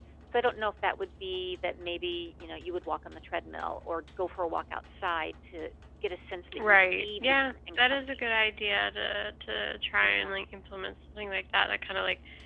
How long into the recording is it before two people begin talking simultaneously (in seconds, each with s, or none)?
6.6 s